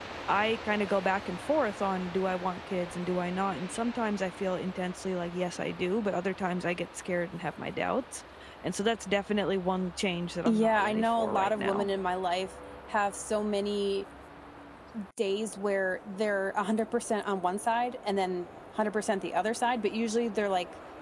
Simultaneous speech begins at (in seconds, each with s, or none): 10.5 s